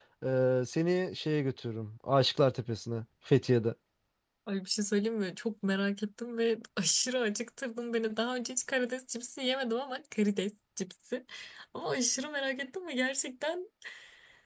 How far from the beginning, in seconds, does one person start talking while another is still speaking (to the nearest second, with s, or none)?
none